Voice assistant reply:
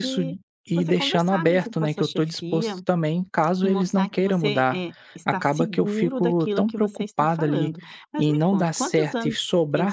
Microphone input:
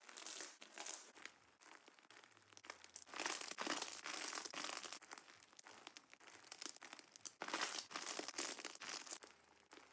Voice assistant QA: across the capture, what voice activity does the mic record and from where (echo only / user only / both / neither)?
neither